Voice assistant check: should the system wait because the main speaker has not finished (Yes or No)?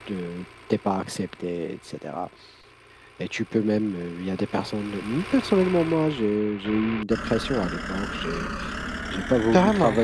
Yes